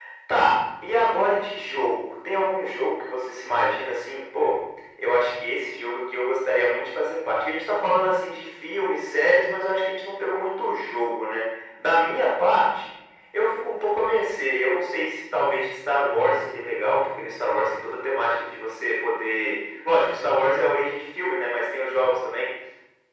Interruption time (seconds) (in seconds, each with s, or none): none